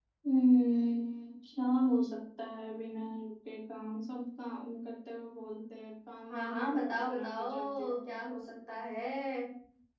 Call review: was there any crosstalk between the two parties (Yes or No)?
Yes